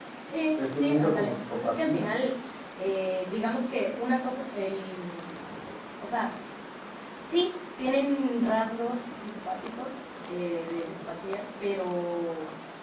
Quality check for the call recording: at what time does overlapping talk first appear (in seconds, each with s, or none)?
0.6 s